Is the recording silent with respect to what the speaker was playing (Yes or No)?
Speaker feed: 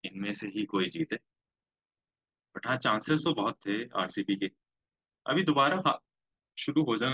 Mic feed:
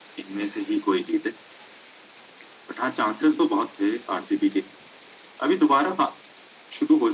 No